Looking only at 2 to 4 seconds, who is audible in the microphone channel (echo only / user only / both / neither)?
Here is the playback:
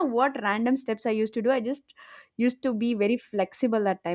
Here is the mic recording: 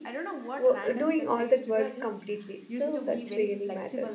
both